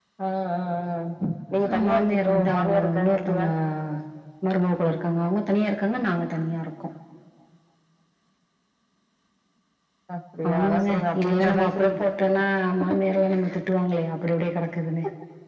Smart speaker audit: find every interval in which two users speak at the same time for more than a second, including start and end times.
1.7-3.4, 10.5-11.9

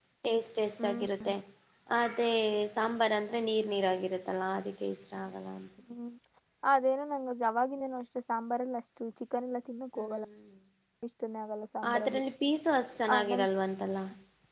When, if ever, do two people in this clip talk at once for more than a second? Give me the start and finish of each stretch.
none

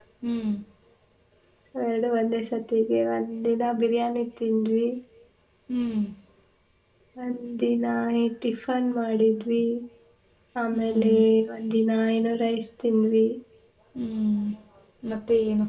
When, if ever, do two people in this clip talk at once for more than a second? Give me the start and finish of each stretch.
none

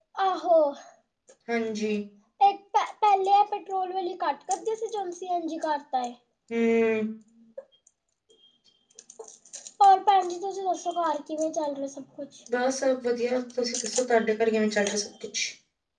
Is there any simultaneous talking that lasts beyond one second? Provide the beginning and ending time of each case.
none

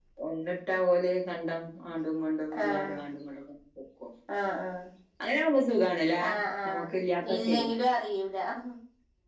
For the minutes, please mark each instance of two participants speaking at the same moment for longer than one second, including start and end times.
none

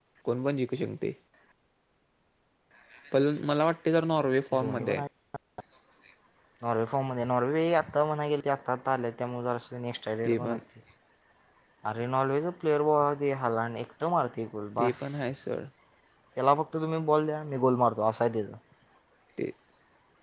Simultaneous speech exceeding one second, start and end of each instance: none

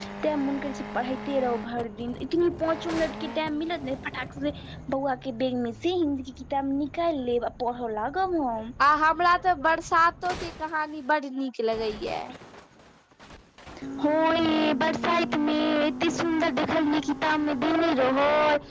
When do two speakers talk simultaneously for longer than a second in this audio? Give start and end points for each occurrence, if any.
none

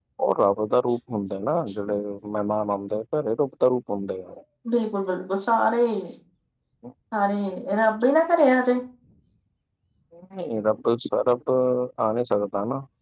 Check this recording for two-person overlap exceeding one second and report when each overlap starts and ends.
none

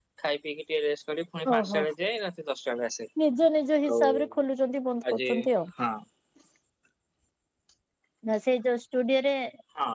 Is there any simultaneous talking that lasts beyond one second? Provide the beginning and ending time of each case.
none

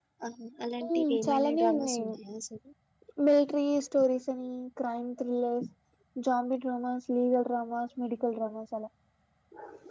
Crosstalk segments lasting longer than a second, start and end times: 0.8-2.1

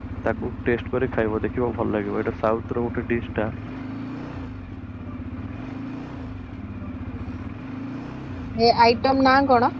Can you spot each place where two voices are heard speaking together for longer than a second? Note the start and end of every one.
none

